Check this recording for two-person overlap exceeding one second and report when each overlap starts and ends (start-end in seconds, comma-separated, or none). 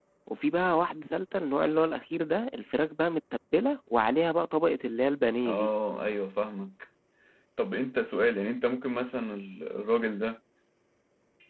none